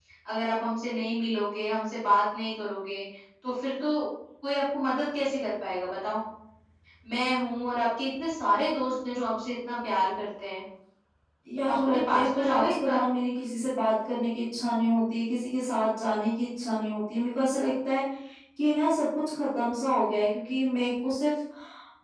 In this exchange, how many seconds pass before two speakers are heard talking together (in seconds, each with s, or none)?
11.7 s